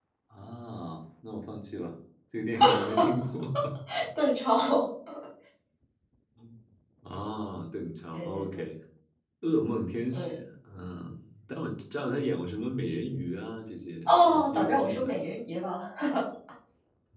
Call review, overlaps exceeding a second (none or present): present